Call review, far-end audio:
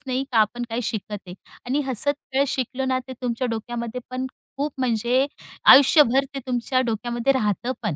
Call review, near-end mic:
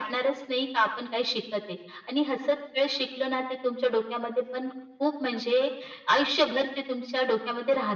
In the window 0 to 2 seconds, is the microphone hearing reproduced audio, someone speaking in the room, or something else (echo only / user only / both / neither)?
echo only